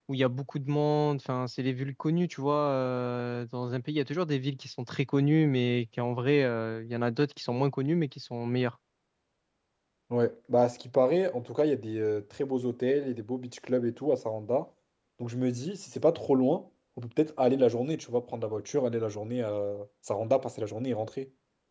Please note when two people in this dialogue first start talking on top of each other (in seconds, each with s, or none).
none